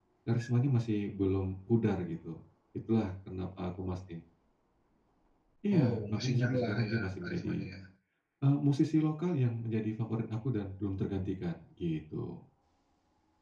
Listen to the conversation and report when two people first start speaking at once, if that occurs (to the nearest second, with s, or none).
6 s